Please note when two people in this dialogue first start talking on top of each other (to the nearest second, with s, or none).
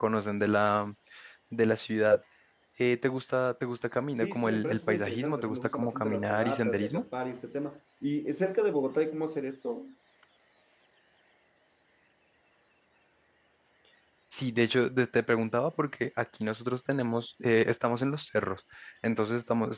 4 s